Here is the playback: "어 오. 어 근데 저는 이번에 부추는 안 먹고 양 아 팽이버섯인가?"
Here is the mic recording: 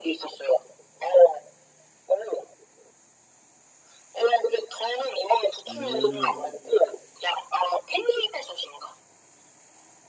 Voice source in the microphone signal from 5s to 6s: both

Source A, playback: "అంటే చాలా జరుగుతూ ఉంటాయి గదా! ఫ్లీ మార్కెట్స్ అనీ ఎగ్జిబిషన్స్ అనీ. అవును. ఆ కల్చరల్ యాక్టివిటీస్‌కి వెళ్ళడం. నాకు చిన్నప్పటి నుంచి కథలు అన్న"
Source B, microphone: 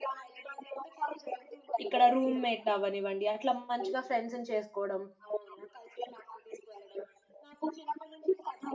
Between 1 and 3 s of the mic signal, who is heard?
both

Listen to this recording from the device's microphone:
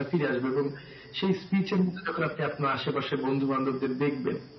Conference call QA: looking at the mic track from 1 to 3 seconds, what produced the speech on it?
echo only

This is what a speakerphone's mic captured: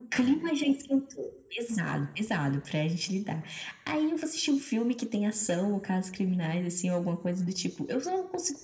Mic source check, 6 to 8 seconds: echo only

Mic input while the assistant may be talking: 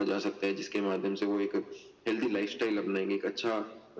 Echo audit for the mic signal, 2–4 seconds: echo only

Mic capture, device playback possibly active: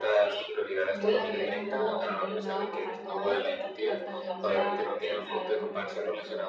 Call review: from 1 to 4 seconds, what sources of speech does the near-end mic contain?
both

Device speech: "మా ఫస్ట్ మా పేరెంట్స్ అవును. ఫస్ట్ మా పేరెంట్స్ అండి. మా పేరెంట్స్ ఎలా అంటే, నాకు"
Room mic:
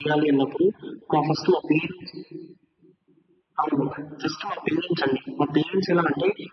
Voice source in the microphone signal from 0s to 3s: echo only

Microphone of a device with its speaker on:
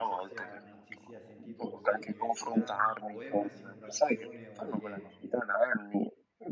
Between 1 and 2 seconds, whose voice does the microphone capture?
both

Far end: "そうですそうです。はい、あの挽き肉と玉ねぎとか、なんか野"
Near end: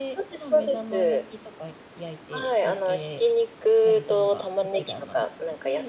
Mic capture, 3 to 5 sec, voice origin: both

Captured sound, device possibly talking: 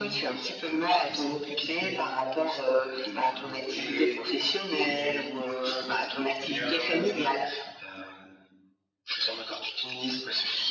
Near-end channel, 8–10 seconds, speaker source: echo only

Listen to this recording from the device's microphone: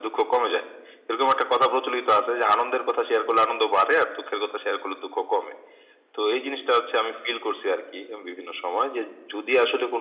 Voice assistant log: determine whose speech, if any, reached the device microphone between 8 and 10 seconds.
echo only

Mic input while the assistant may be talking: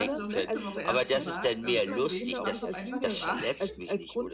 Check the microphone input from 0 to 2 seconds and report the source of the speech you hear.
both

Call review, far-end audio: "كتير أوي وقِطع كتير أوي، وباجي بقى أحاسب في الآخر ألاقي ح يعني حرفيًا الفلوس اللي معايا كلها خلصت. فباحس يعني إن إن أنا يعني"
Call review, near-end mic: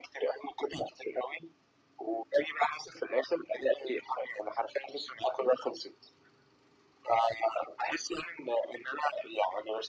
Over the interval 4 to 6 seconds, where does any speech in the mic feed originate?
echo only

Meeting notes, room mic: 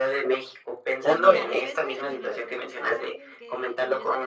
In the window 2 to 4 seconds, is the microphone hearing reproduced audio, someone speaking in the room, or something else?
both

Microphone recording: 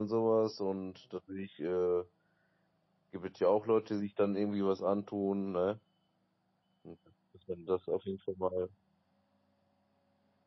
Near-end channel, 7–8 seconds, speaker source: user only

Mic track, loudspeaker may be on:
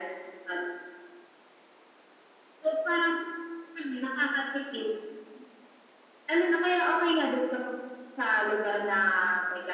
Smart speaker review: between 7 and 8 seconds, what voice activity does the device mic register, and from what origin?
echo only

